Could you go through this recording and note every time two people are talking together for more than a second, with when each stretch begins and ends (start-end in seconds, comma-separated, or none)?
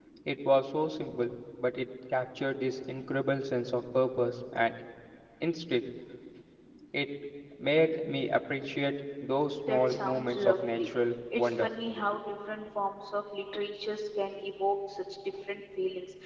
9.7-10.9